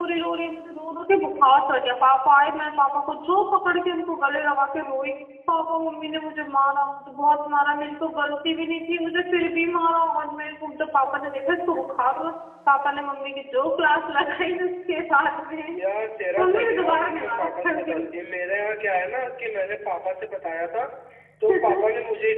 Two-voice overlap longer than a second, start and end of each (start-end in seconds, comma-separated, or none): 16.4-18.0